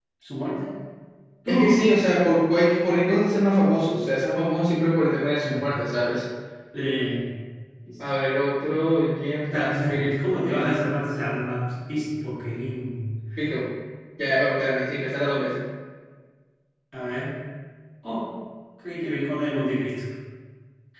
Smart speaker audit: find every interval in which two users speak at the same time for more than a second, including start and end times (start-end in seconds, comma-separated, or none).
9.4-10.9